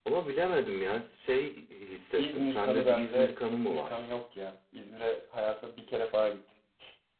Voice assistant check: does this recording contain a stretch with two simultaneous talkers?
Yes, from 2.1 s

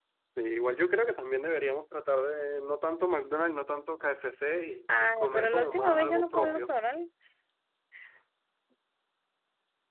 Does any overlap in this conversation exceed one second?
Yes, from 4.9 s

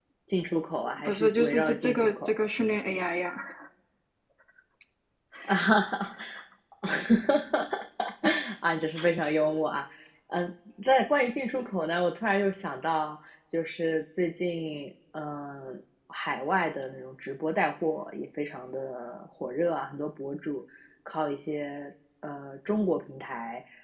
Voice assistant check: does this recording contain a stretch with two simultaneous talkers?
Yes, from 1.0 s

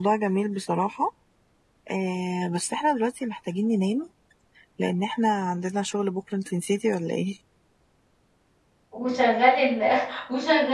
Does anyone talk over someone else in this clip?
No

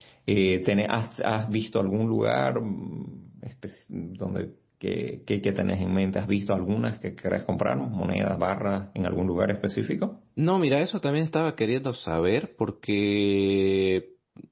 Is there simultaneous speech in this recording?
No

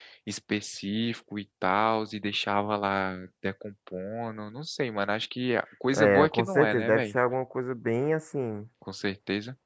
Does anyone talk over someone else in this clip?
Yes, from 5.9 s

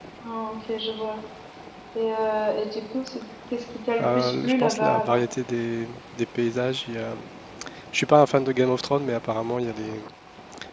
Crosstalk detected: Yes, from 4.0 s

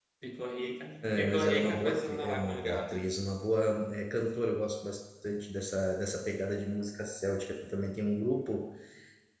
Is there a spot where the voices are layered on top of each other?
Yes, from 1.0 s

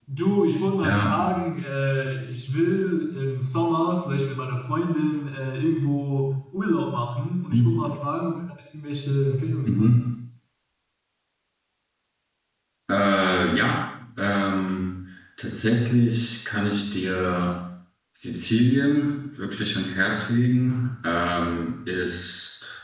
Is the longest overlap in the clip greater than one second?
No

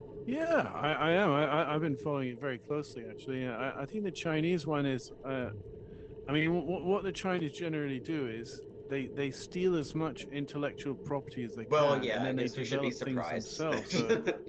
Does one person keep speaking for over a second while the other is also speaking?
Yes, from 11.7 s

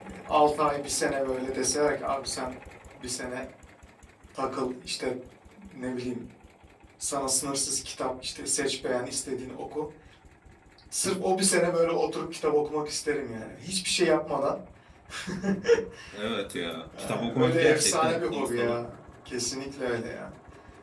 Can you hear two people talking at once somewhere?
Yes, from 17.0 s

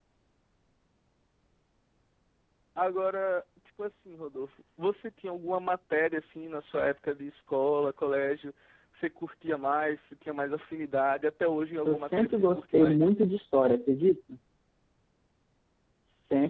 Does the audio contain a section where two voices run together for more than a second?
Yes, from 11.9 s

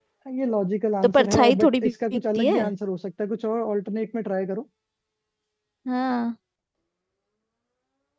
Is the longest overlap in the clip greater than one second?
Yes, from 1.0 s

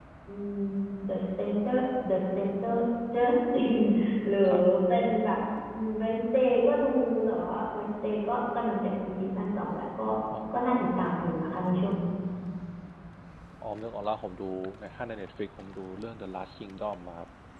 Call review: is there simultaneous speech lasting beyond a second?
No

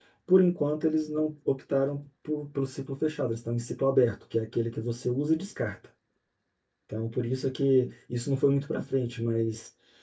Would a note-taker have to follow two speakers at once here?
No

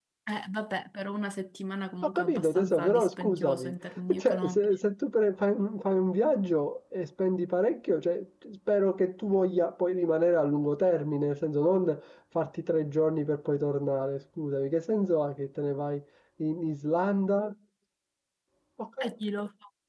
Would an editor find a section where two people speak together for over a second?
Yes, from 2.0 s

